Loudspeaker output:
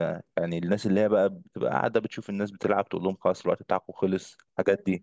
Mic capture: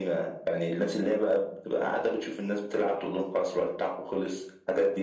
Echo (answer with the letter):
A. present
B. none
A